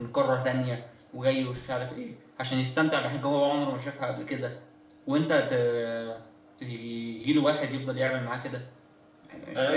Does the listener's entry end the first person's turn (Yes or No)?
Yes